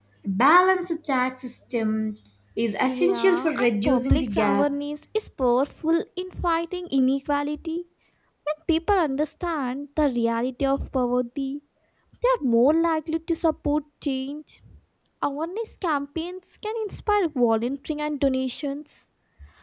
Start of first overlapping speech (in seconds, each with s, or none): 2.9 s